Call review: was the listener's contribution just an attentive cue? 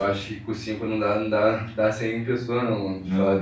No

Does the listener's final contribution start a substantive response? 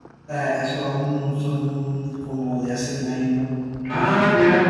Yes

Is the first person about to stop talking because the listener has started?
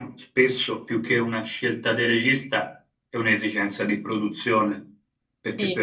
No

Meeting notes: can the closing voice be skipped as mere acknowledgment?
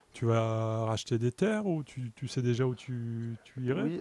No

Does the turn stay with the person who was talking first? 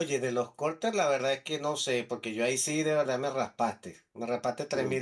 Yes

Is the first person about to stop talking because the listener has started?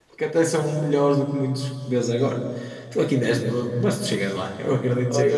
Yes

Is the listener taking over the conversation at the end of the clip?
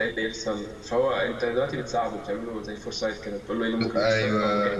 No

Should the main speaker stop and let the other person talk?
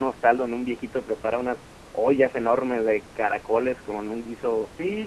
Yes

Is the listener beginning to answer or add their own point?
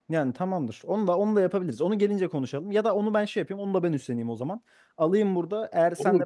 Yes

